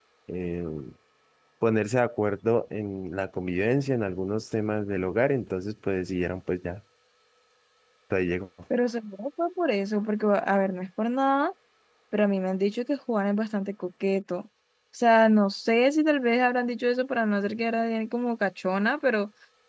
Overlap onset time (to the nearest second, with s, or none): none